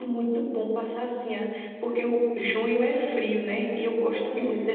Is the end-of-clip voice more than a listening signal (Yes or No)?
No